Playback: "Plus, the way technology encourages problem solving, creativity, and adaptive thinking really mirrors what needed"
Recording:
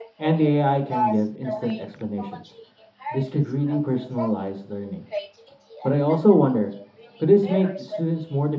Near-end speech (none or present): present